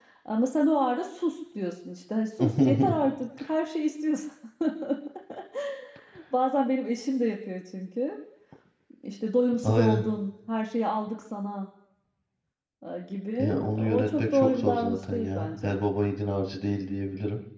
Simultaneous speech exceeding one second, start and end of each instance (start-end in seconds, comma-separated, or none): 13.4-15.8